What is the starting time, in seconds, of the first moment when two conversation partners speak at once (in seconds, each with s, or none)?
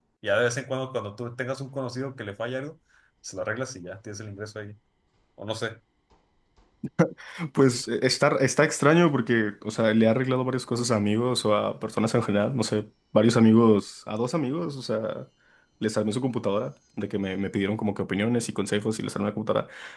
none